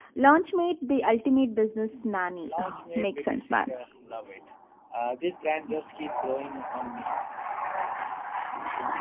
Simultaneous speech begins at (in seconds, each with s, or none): 2.5 s